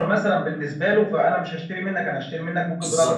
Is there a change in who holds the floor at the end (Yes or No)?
Yes